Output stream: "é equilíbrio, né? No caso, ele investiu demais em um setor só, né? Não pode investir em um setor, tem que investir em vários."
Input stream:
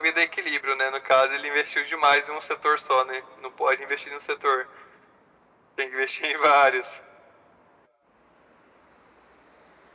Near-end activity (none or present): none